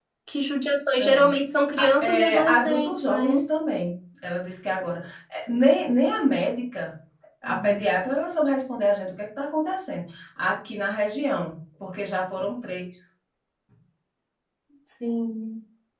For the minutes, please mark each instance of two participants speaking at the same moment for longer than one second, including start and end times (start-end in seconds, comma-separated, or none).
1.8-3.4